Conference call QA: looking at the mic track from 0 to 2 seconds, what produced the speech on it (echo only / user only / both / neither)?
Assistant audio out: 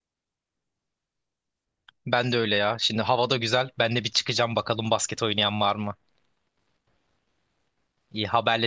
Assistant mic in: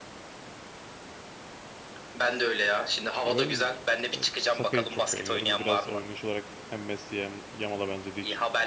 neither